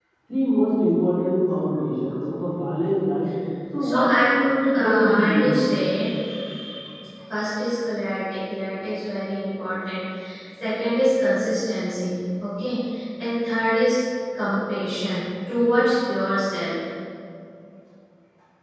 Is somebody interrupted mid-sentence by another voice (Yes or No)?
Yes